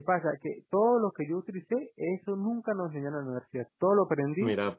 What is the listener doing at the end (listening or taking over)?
listening